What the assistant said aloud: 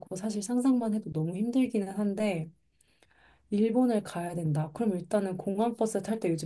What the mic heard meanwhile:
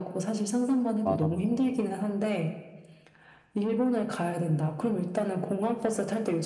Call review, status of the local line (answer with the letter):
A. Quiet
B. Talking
B